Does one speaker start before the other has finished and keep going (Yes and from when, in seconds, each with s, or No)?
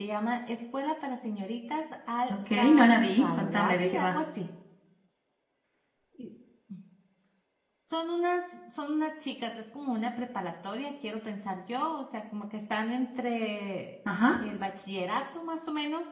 Yes, from 2.3 s